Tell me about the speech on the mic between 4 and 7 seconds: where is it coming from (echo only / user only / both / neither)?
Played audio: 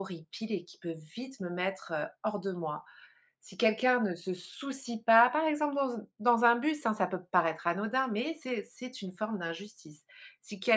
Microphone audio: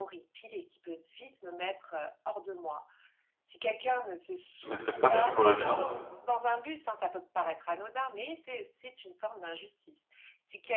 both